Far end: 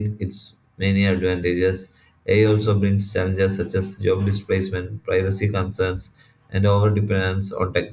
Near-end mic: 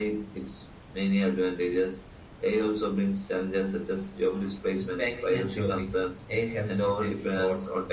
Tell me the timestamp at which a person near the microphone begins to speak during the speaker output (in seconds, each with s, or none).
4.8 s